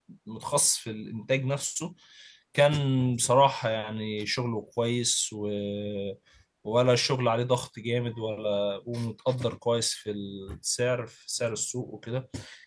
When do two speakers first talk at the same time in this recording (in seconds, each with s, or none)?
none